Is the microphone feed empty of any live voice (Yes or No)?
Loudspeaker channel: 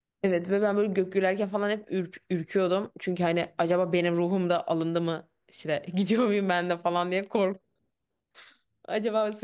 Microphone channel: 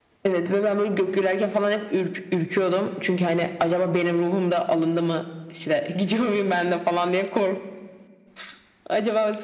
Yes